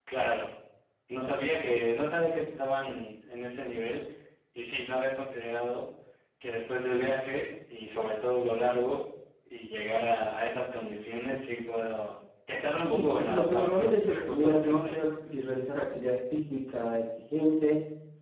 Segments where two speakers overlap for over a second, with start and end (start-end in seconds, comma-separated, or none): 12.9-14.9